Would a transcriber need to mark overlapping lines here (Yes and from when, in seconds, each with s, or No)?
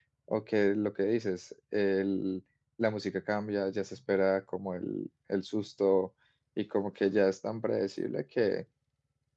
No